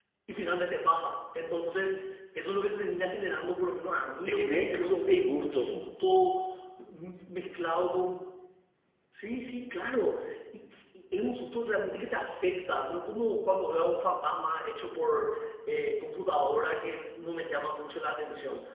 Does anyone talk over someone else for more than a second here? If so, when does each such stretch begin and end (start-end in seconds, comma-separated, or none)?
4.3-5.7